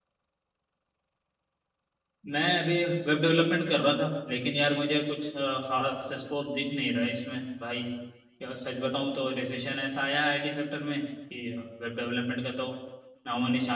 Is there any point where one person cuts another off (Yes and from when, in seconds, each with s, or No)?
No